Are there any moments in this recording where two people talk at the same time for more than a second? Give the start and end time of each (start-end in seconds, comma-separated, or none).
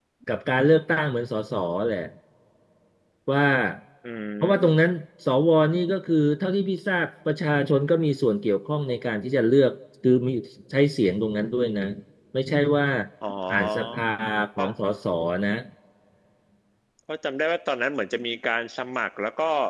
none